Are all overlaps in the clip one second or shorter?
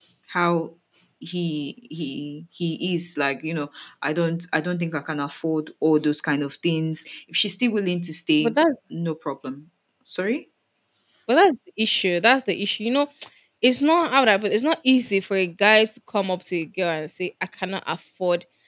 Yes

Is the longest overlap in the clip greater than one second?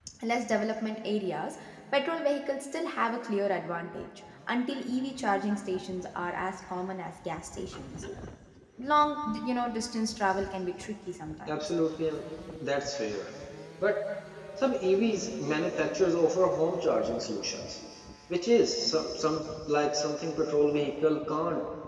No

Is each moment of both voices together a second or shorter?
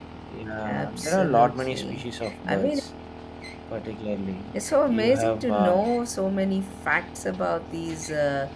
No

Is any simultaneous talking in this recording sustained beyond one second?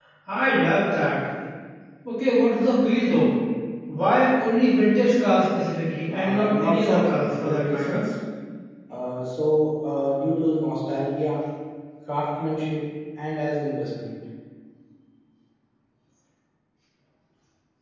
Yes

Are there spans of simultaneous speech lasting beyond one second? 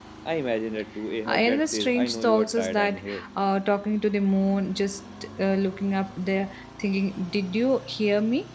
Yes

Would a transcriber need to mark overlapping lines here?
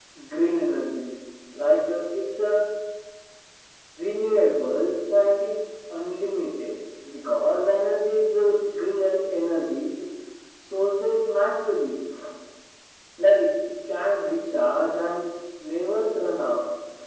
No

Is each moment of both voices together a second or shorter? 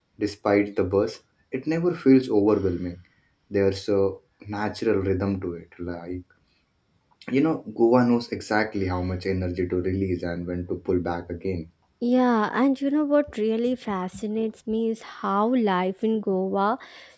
Yes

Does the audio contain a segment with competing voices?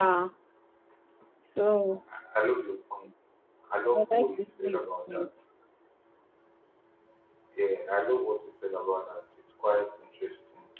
Yes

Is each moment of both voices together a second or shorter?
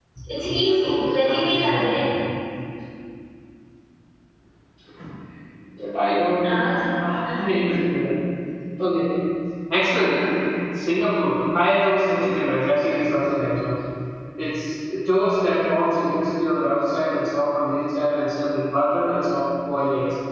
No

